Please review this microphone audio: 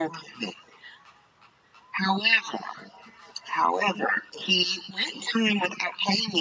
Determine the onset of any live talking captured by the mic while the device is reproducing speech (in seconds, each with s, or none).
none